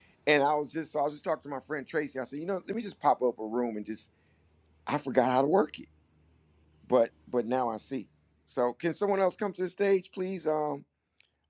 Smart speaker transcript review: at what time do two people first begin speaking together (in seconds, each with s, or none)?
none